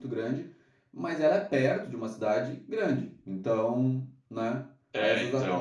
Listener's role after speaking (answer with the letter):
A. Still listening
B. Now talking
A